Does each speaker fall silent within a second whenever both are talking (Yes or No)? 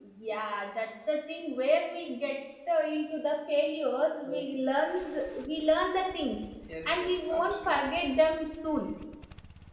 No